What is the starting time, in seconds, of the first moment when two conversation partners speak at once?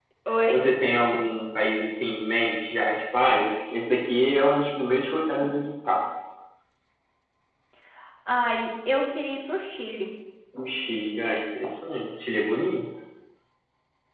none

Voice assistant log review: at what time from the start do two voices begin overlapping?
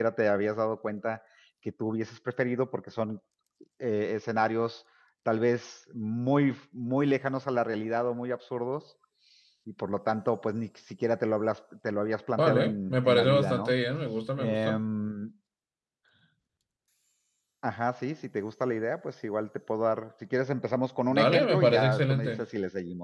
12.3 s

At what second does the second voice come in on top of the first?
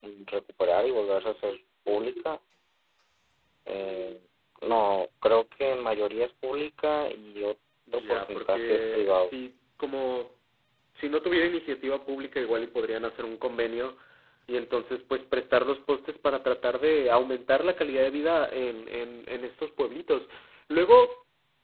7.9 s

